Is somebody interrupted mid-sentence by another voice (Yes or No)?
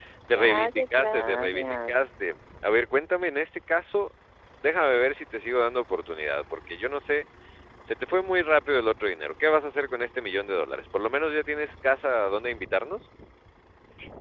Yes